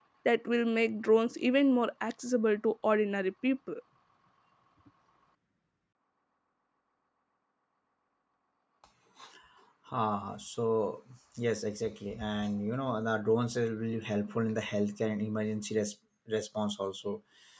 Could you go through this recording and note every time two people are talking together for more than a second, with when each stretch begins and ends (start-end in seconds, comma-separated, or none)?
none